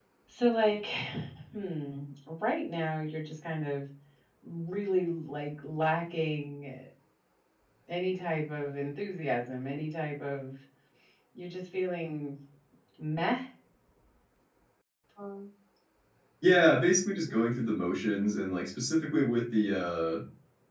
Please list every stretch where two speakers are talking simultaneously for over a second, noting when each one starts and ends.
none

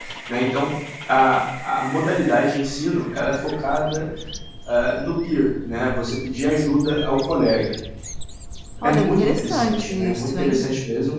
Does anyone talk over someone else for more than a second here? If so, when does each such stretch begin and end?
8.8-10.6

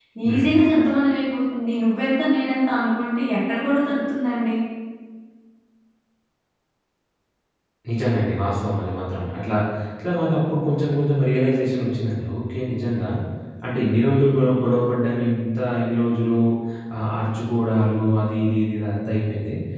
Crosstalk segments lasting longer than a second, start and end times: none

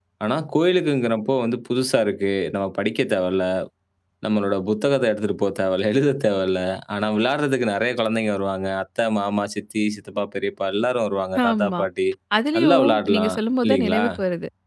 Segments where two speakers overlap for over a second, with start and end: 12.6-14.0

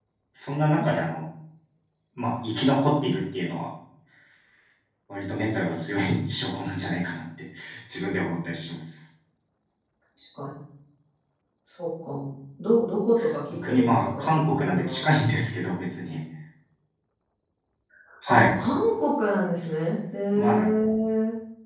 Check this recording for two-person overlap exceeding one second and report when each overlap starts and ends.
13.6-15.0

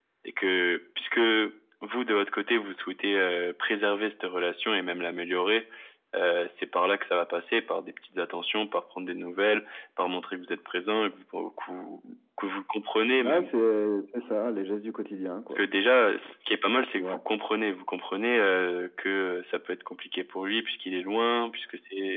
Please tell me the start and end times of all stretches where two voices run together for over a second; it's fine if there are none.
none

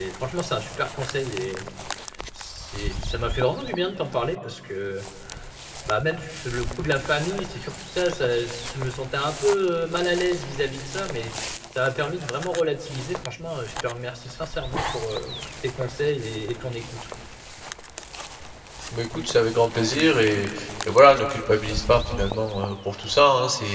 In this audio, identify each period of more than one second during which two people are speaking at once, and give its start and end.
none

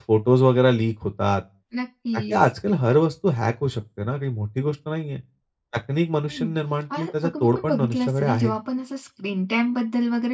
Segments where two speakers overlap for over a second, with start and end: 7.0-8.5

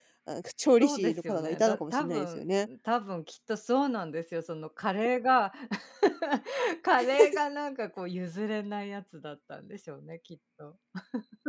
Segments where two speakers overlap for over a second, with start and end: 0.8-2.7

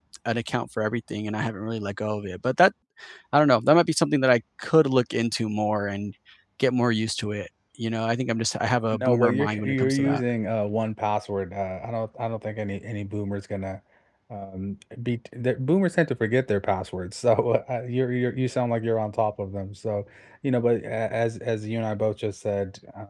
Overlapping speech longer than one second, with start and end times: 8.9-10.2

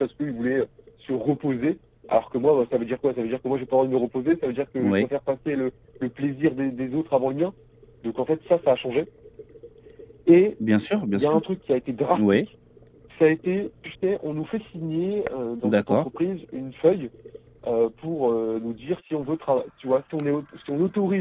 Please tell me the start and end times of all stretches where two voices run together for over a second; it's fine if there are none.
none

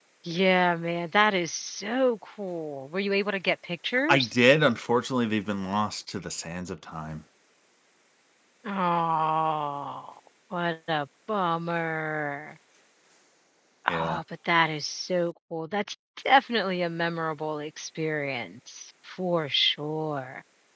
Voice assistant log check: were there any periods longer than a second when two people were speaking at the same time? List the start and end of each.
none

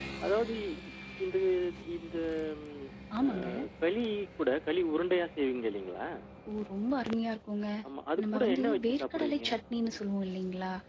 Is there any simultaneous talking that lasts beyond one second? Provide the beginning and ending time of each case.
8.2-9.4

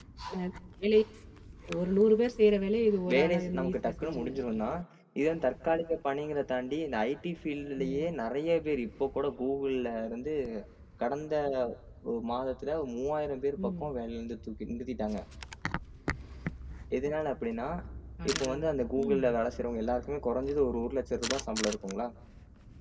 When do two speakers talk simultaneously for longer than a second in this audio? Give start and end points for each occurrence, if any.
3.1-4.8

